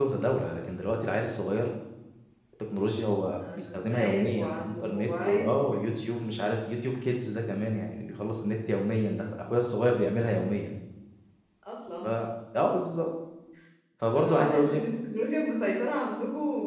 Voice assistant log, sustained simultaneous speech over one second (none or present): present